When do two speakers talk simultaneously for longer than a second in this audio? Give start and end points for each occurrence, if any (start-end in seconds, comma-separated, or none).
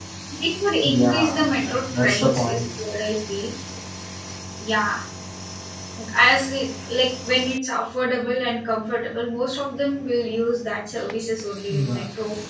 0.8-2.6